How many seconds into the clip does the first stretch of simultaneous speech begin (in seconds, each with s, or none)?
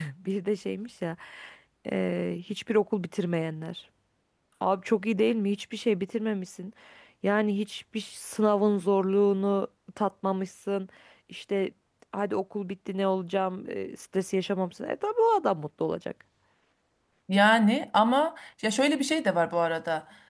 none